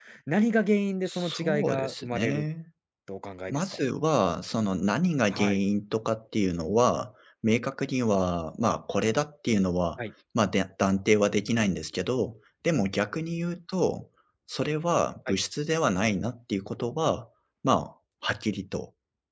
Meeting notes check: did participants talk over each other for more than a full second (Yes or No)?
Yes